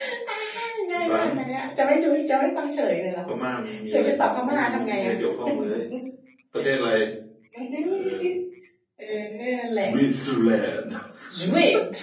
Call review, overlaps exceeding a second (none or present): present